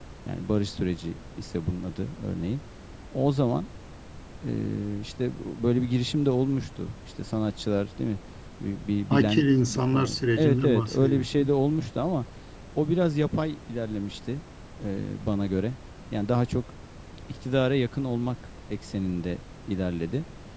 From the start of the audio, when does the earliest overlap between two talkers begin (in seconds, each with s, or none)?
9.1 s